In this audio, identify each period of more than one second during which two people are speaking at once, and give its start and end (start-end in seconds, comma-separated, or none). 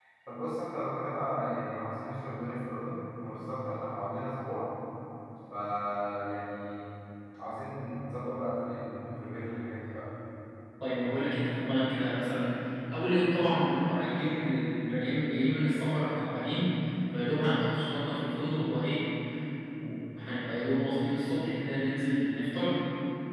none